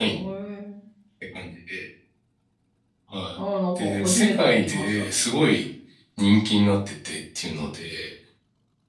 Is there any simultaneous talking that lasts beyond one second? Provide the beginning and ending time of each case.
3.8-5.5

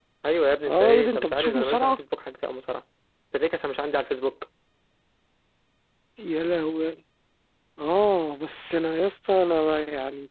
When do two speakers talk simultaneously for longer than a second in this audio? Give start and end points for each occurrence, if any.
0.7-1.9

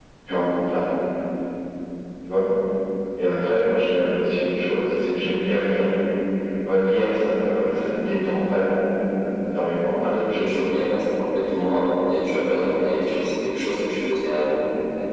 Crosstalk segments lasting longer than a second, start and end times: none

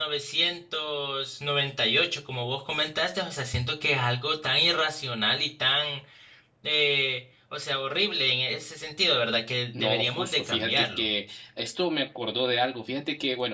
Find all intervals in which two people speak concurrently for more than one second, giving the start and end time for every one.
9.8-11.0

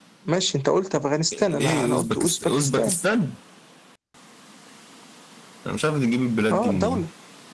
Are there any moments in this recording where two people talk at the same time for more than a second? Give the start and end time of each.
1.3-3.0

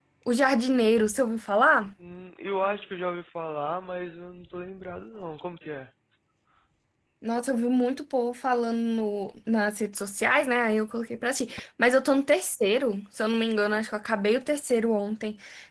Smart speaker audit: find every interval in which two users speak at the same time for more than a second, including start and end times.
none

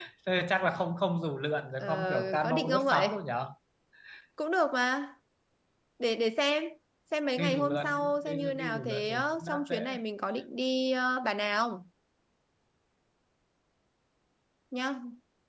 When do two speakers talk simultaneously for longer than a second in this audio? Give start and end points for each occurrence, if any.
1.8-3.2, 7.4-10.0

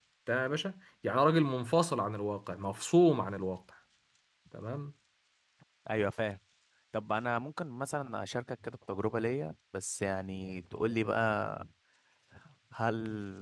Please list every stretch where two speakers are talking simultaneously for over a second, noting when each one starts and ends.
none

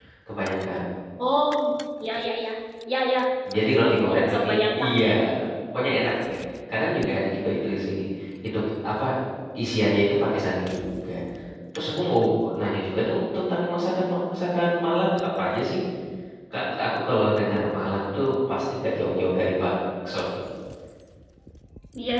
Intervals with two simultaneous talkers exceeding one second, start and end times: 3.8-5.0

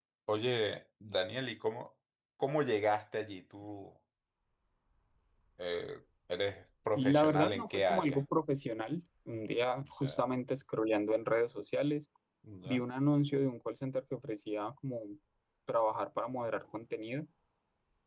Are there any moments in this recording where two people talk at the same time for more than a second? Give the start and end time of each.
7.0-8.2

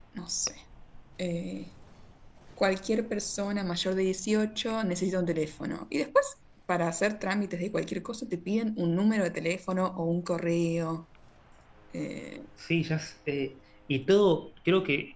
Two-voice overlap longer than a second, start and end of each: none

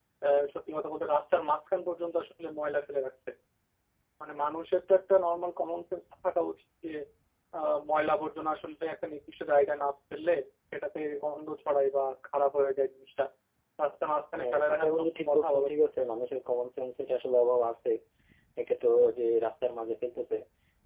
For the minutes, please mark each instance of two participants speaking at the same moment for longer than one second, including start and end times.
14.4-15.8

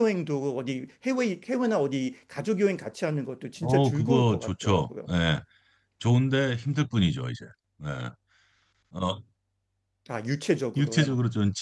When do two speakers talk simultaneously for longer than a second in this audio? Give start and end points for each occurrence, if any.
3.6-4.8

